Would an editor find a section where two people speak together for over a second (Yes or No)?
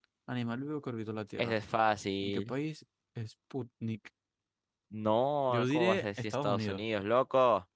Yes